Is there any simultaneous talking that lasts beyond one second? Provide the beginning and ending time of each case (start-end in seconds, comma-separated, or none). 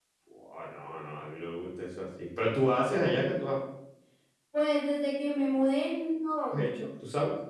none